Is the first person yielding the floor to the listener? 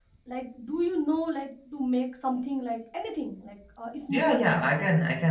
Yes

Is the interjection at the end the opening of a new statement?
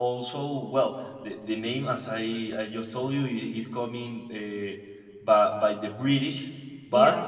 No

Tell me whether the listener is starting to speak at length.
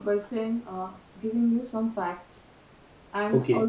No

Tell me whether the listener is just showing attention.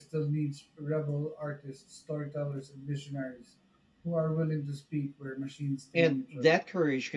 No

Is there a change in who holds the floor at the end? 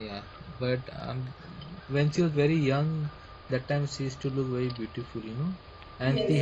Yes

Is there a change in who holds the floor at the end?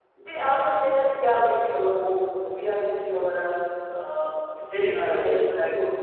Yes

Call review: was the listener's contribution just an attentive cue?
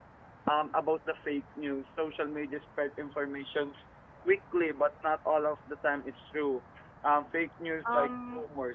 No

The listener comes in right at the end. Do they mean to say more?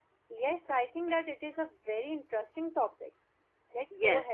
Yes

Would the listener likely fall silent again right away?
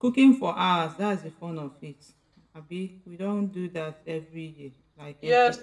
No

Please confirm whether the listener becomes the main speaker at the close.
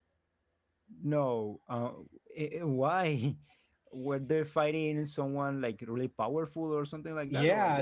Yes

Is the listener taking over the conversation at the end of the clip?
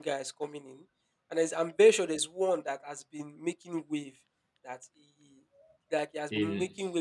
No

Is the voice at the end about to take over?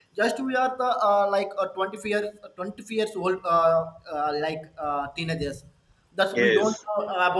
No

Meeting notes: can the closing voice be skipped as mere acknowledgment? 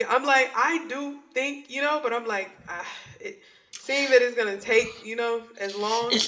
No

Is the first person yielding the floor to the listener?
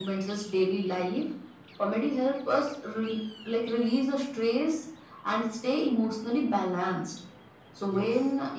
No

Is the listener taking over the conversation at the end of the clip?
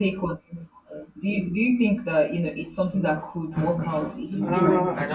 Yes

